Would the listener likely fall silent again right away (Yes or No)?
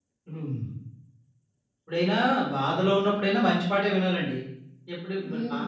Yes